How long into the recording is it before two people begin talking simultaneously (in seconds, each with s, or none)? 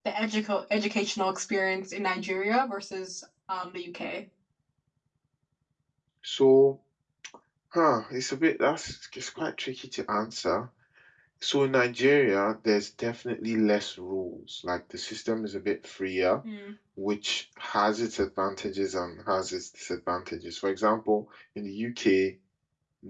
none